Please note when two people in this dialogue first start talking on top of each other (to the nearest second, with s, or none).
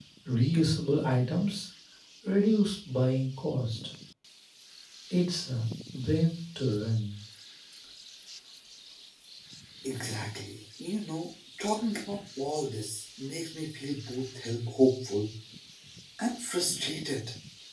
none